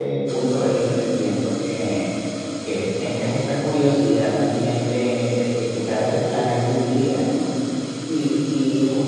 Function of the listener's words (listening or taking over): listening